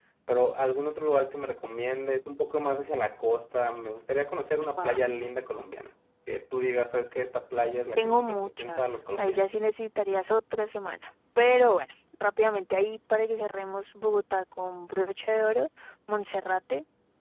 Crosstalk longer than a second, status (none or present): present